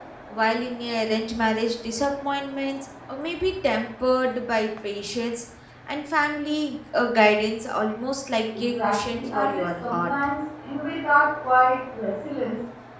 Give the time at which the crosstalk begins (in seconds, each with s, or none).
8.6 s